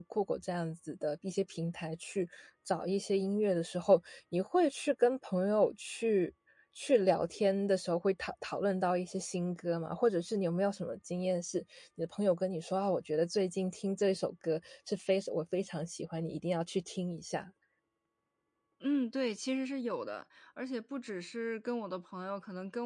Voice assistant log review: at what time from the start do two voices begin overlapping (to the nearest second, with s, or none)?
none